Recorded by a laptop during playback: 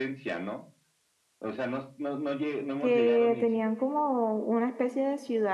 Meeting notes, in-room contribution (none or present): present